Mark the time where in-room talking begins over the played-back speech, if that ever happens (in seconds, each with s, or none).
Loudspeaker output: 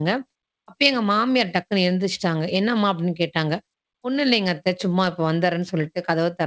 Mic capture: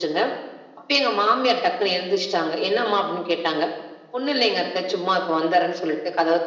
none